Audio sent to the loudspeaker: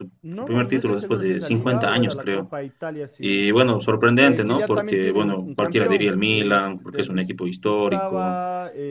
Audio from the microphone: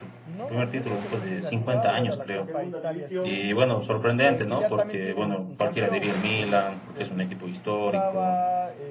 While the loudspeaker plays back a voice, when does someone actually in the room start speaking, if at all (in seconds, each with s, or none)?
2.3 s